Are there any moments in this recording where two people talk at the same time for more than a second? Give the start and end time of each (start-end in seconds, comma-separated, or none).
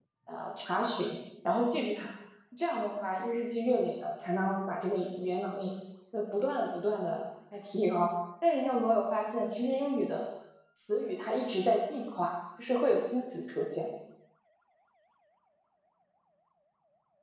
none